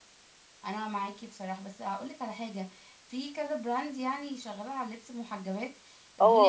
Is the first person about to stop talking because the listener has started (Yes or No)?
Yes